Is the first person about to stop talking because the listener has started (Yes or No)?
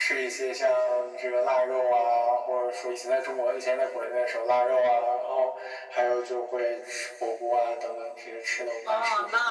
Yes